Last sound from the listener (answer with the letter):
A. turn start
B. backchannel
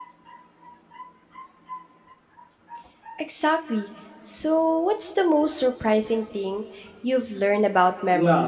A